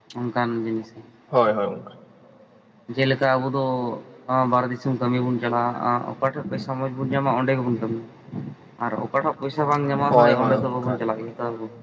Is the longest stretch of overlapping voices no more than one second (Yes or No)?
No